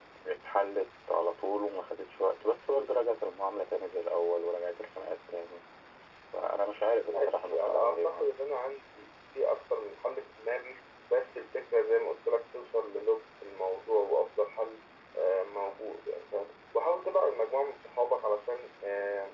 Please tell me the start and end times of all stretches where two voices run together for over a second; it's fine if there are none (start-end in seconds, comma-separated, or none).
7.0-8.3